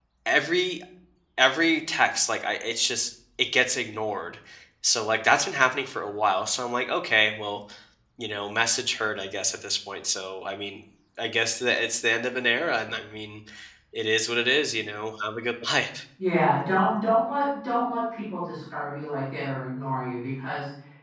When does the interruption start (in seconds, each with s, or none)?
none